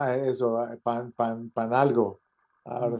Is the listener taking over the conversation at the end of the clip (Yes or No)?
Yes